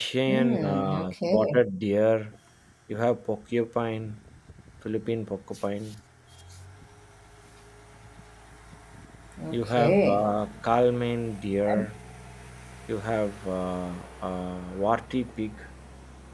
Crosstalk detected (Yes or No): Yes